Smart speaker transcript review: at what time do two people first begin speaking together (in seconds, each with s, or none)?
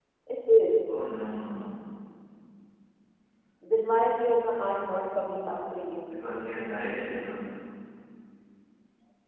none